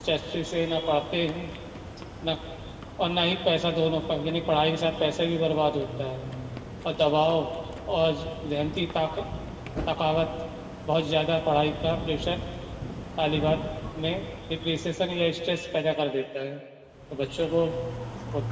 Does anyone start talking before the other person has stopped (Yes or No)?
No